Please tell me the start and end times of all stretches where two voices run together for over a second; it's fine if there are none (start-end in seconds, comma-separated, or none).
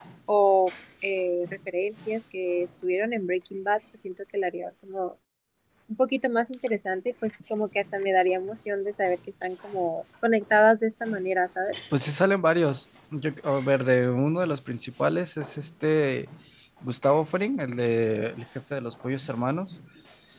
none